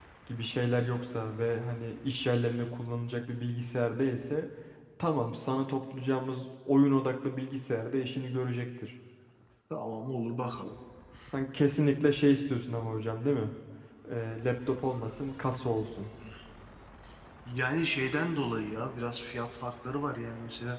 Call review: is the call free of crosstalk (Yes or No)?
Yes